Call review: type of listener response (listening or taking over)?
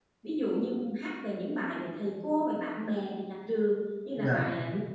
listening